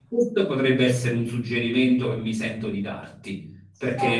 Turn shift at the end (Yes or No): No